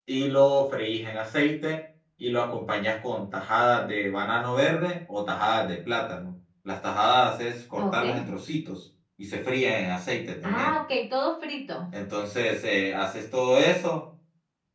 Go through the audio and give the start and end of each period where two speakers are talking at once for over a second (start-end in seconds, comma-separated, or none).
none